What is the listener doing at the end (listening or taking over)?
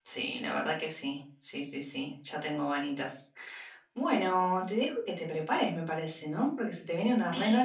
taking over